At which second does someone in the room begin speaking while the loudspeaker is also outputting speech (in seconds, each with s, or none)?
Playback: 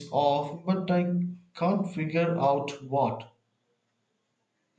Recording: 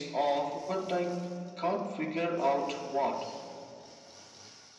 none